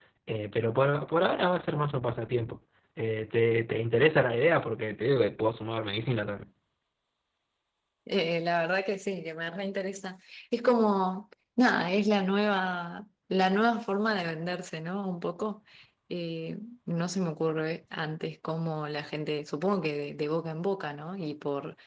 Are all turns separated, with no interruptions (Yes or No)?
Yes